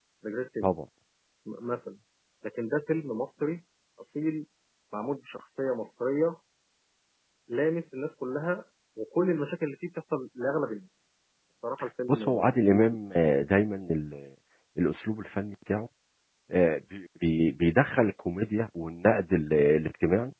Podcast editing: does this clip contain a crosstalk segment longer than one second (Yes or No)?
No